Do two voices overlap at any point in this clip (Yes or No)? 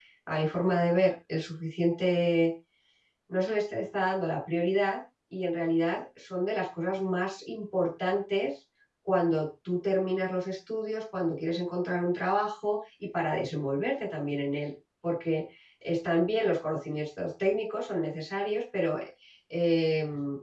No